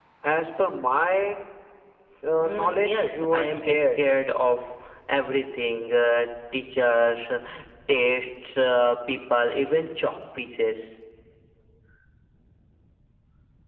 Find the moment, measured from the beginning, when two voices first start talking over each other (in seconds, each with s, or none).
2.4 s